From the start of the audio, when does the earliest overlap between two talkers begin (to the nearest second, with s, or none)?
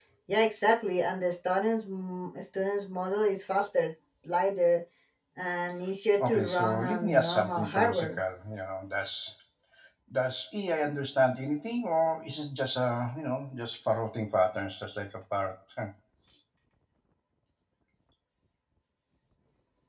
6 s